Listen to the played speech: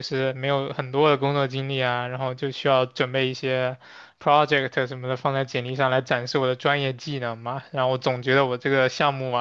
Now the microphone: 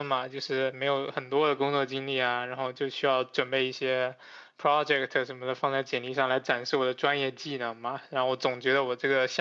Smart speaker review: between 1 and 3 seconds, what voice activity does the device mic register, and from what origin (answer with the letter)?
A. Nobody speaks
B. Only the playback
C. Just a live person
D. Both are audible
B